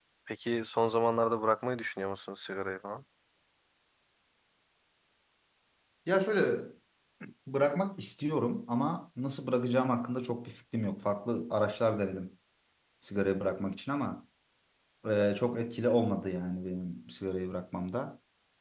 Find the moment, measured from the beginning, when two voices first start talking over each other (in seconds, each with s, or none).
none